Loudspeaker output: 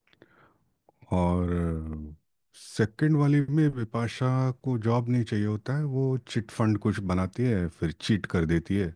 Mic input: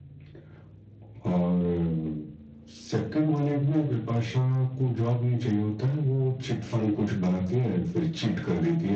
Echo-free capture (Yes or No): No